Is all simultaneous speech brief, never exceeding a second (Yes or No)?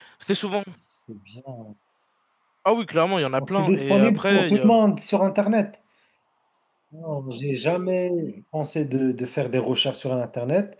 No